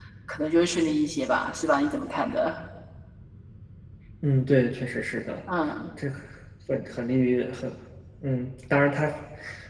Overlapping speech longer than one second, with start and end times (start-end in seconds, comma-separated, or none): none